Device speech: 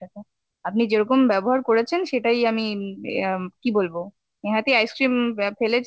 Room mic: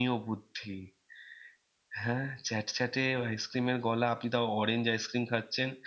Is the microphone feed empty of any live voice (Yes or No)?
No